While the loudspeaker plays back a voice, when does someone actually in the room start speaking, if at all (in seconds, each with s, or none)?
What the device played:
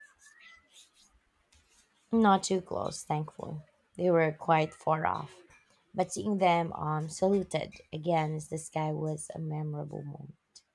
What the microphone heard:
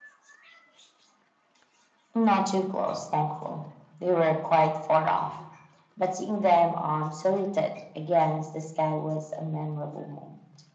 none